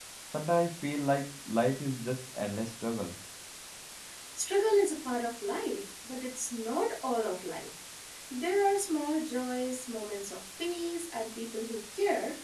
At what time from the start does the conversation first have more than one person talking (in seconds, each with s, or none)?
none